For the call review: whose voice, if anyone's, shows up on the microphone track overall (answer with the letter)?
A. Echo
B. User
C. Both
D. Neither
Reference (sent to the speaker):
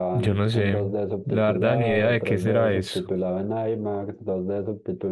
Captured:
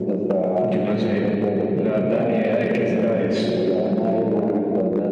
A